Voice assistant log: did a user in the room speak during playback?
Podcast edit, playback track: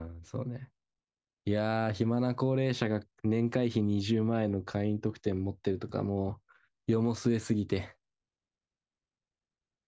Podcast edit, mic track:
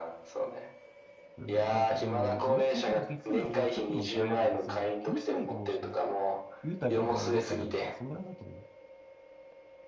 Yes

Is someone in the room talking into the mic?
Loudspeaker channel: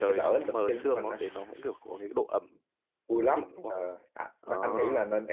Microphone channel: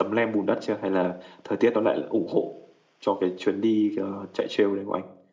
Yes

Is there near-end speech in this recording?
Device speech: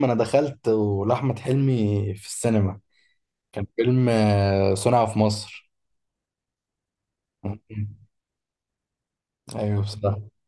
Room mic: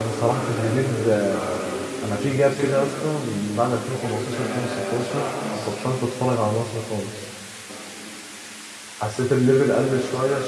Yes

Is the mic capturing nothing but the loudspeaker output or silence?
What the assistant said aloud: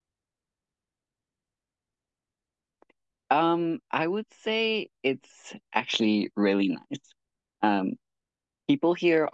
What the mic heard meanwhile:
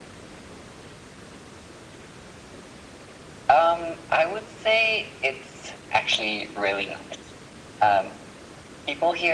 Yes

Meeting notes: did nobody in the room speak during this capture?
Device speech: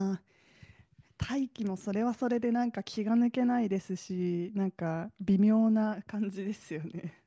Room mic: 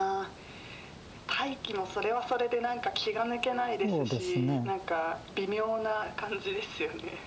No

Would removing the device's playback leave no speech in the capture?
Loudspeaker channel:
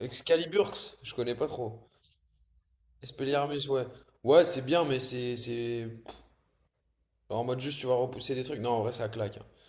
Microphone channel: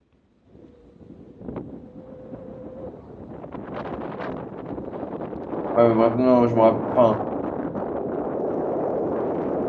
No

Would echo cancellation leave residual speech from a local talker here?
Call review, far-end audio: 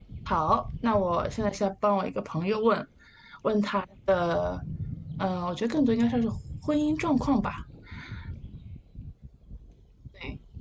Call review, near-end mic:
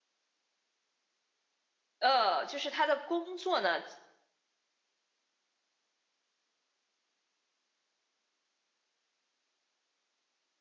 Yes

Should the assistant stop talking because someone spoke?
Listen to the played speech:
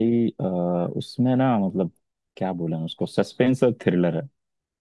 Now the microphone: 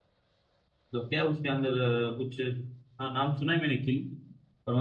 Yes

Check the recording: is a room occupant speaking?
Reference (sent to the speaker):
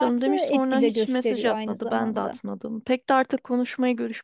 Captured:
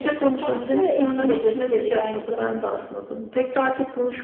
No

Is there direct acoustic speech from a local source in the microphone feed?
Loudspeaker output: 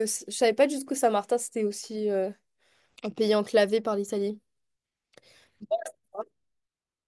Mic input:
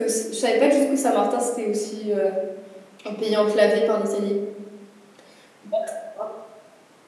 No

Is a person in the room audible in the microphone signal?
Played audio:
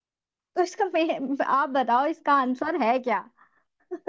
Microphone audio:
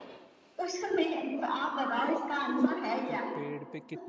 Yes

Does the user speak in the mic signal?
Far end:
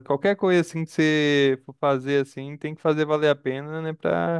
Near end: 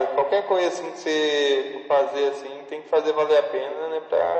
No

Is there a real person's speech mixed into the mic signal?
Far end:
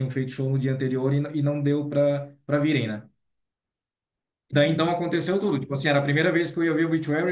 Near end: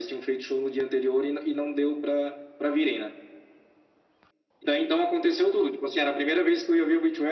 No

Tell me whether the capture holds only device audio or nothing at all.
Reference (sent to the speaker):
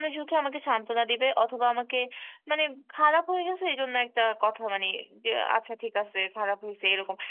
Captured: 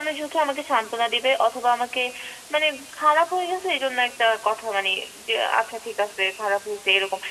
Yes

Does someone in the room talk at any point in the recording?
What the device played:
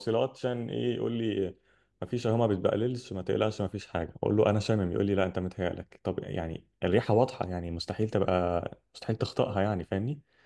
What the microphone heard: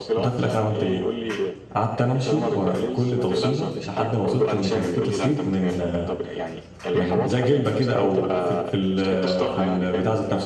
Yes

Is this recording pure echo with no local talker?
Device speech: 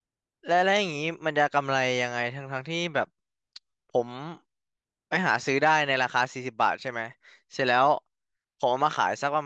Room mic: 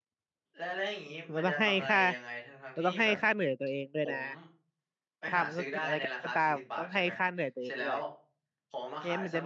No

